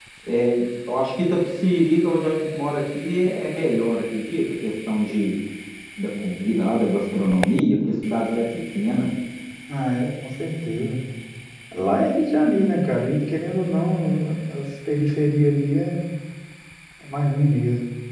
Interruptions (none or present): none